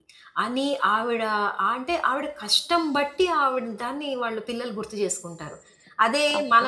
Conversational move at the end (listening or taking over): listening